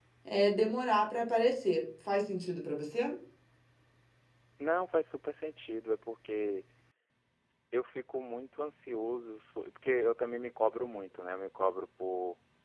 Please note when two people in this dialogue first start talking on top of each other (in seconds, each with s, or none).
none